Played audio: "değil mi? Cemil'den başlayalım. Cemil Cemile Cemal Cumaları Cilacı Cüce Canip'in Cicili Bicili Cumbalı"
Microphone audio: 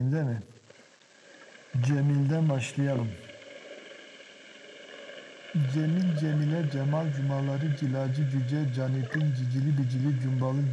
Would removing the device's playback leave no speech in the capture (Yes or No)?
Yes